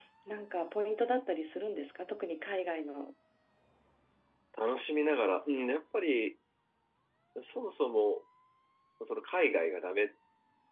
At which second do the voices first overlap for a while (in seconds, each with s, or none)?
none